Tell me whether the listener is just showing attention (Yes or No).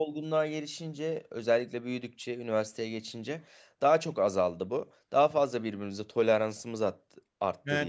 No